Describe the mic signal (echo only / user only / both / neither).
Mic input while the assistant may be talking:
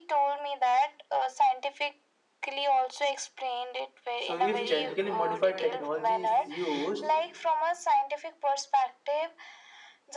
both